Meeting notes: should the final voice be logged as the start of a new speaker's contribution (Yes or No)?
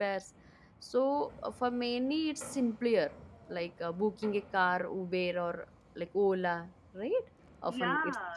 Yes